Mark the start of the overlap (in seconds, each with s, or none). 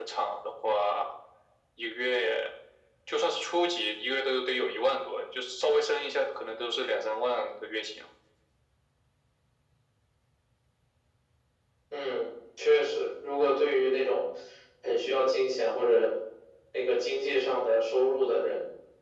none